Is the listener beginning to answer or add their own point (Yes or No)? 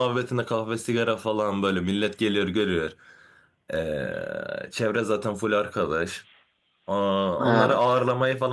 No